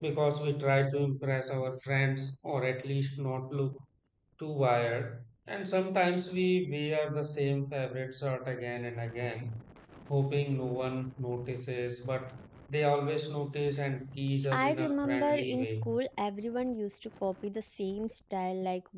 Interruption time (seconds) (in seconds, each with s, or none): 14.4 s